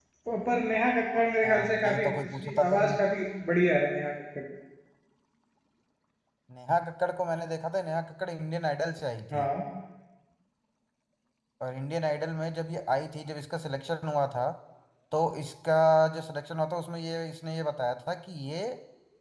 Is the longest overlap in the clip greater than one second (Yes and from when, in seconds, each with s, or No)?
Yes, from 1.4 s